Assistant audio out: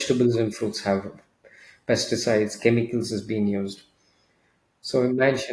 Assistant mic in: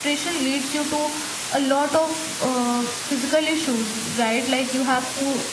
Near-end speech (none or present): present